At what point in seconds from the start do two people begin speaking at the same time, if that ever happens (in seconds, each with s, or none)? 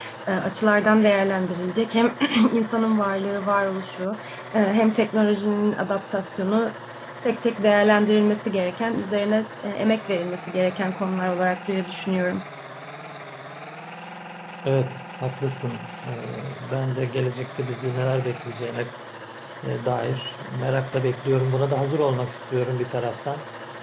none